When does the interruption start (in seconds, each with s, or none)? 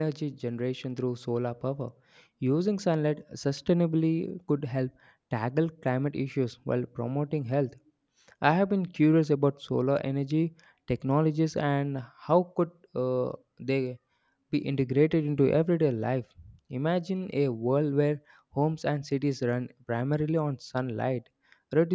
none